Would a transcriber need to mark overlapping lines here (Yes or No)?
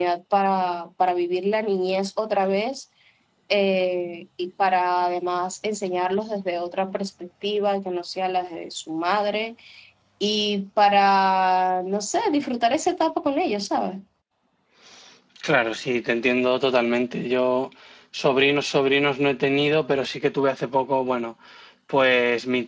No